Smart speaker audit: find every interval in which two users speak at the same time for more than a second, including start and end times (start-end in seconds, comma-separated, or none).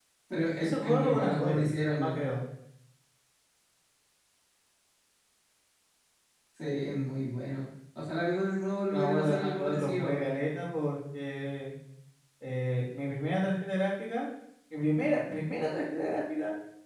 0.6-2.3, 8.9-10.3